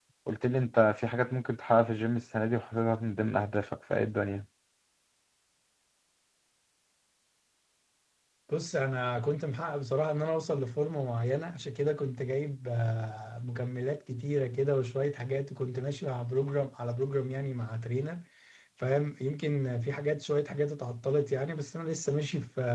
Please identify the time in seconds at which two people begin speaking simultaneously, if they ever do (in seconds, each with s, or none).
none